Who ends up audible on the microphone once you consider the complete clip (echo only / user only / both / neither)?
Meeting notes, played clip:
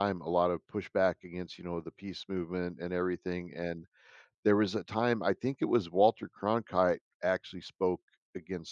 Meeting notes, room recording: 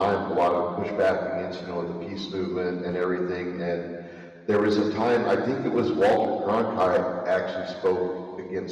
echo only